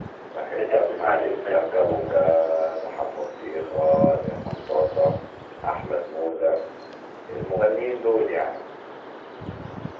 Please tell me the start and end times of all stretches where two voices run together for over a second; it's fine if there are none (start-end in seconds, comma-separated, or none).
0.6-2.2